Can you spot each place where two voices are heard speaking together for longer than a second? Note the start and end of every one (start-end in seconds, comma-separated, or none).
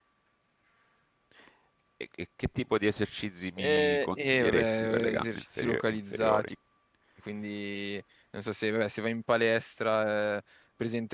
3.6-6.4